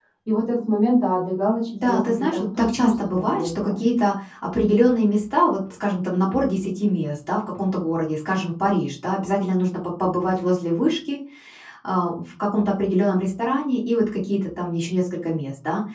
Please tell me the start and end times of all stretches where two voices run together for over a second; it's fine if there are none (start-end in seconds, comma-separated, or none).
1.8-3.7